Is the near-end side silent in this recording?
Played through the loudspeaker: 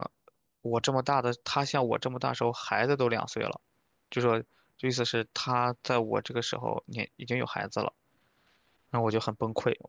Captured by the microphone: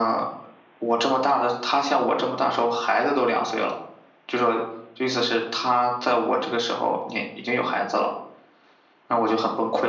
Yes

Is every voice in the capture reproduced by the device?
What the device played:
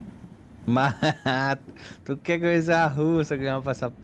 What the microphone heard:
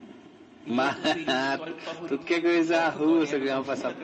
No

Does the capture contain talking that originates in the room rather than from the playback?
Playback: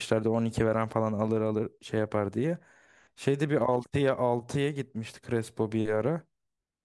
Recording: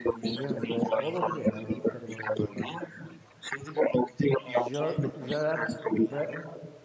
Yes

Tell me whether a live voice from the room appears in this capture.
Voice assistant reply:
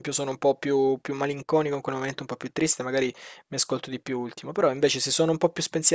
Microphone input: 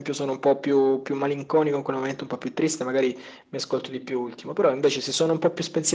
No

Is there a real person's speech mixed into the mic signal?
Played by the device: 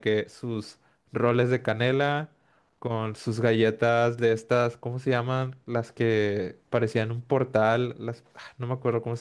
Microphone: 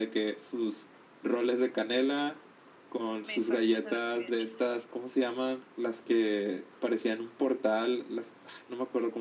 Yes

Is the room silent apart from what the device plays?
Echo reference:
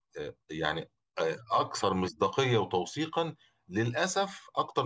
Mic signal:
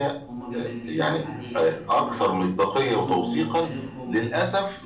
No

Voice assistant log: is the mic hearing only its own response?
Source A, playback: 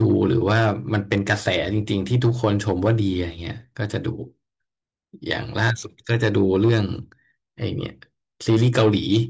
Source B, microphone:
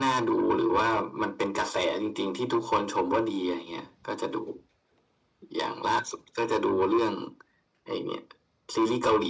Yes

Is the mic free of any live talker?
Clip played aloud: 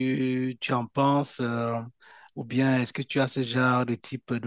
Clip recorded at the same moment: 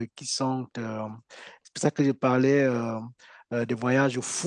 No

